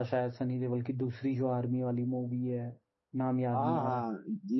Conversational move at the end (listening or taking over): taking over